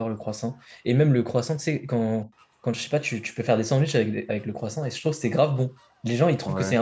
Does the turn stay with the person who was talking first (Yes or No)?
Yes